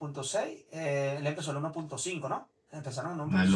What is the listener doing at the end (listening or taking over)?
taking over